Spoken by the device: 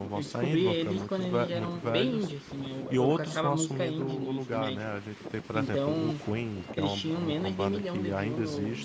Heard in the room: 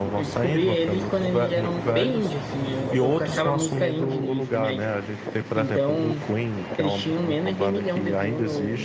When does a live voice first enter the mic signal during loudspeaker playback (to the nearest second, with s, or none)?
none